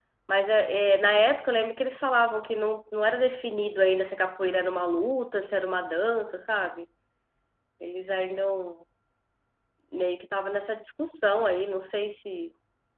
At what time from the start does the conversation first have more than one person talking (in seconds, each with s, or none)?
none